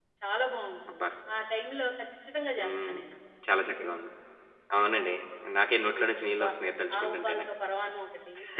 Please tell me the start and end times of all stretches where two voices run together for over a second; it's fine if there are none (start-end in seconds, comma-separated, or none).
none